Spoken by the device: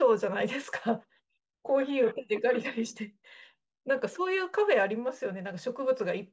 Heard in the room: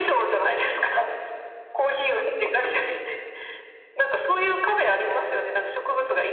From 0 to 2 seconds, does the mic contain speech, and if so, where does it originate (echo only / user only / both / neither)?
echo only